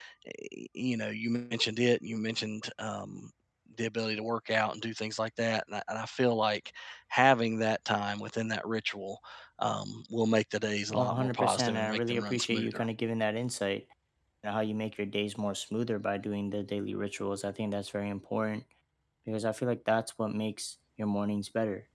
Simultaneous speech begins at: 10.9 s

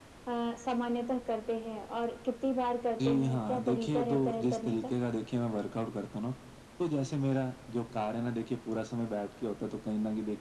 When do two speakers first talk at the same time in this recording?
3.0 s

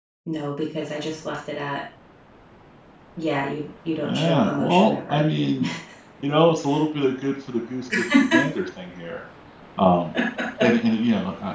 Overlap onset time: 4.0 s

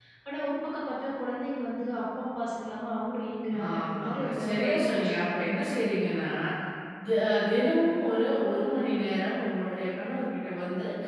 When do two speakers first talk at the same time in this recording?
3.5 s

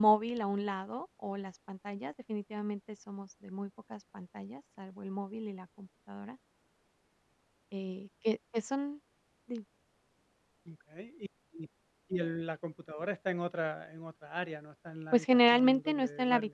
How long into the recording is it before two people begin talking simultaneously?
15.1 s

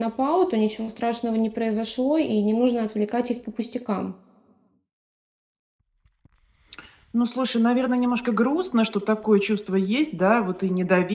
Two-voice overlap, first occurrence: none

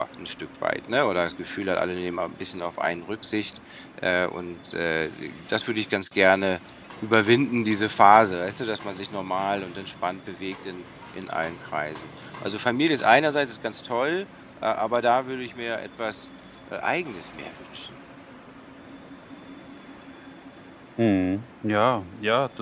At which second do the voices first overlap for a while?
none

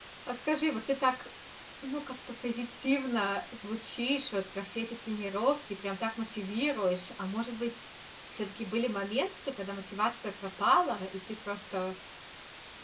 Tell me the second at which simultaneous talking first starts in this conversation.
none

